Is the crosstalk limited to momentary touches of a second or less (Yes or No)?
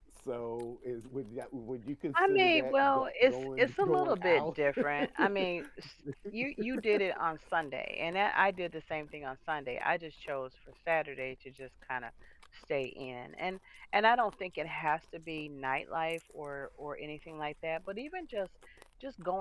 No